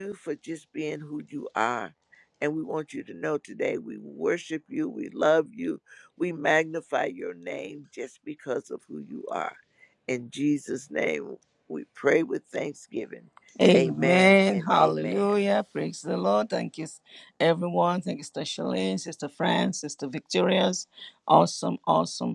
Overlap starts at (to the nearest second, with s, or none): 14 s